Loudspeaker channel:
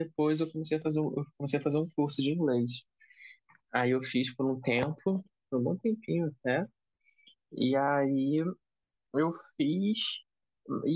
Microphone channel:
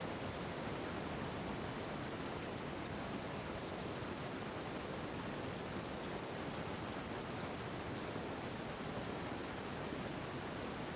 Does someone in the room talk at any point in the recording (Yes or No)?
No